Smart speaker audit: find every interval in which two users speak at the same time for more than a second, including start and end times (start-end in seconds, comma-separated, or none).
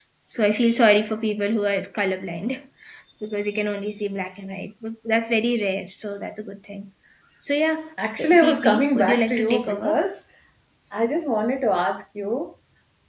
8.2-10.0